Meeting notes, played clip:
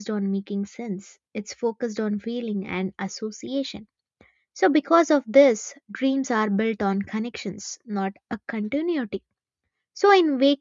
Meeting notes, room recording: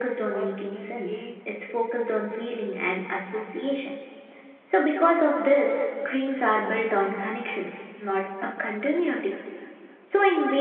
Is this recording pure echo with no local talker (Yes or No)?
No